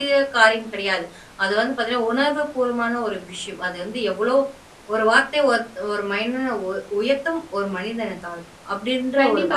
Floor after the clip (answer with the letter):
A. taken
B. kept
A